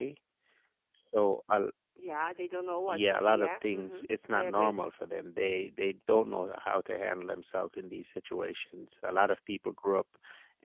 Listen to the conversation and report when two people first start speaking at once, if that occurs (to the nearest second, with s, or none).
3 s